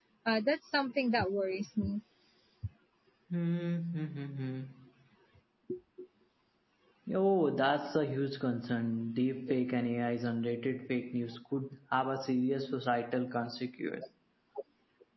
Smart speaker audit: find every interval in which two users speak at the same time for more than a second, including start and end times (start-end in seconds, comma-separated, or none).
none